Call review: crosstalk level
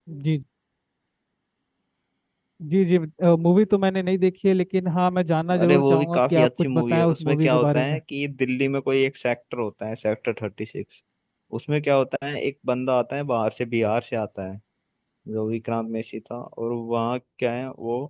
present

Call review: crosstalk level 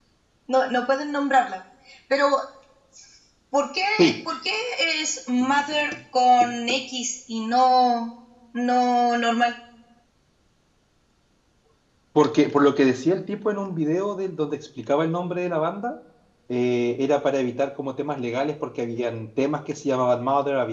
none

